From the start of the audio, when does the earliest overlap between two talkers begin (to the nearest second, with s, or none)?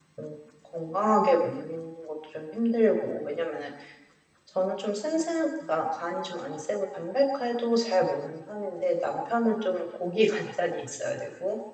none